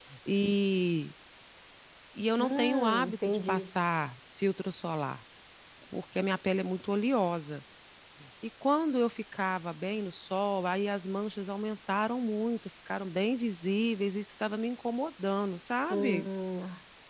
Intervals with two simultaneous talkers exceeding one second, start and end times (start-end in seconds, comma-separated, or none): 2.4-3.7